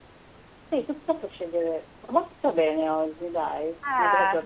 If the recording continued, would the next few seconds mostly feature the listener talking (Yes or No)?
Yes